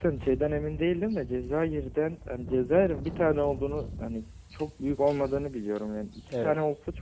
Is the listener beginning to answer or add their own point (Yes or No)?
No